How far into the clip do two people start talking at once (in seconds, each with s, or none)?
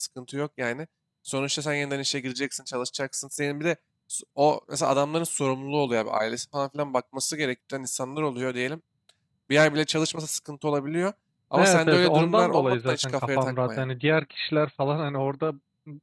11.6 s